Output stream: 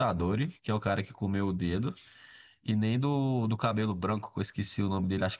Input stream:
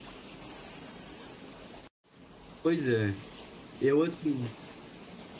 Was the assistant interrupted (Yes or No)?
Yes